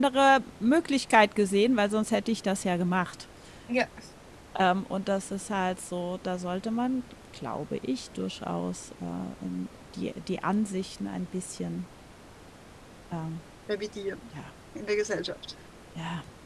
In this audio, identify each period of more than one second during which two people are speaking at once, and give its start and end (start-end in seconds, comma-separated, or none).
none